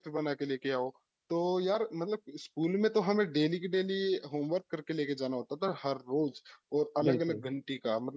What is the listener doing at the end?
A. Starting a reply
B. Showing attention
B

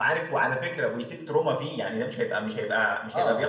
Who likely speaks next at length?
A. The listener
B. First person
B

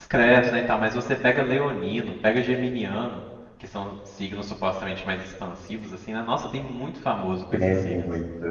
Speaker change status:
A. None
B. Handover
B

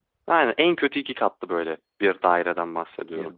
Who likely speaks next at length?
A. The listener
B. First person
B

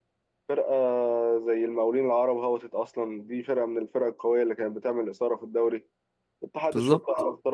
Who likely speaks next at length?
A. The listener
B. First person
B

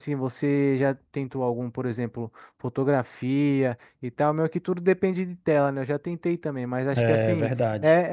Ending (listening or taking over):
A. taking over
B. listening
B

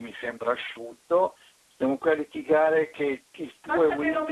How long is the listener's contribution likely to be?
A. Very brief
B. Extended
B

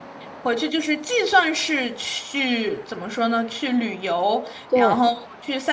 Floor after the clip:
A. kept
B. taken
A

